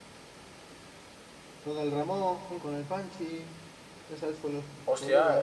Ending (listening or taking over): taking over